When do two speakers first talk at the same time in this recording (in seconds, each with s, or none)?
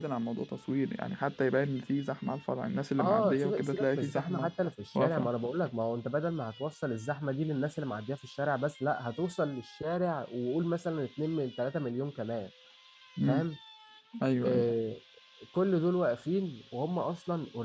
3.0 s